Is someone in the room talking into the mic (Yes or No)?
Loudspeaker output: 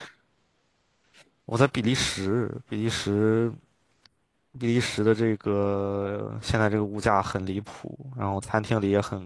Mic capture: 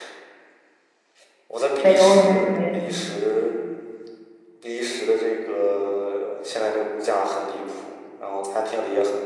Yes